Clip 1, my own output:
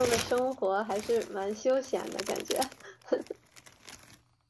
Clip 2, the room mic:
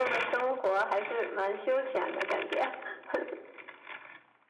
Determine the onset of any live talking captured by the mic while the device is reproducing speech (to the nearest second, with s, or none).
none